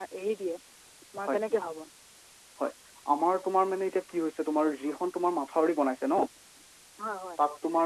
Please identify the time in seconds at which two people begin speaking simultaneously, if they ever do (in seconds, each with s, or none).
none